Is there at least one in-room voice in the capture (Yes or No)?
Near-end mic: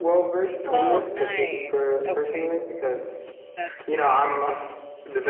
Yes